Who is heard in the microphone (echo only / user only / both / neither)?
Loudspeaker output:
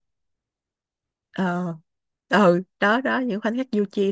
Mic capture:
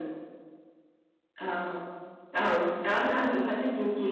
echo only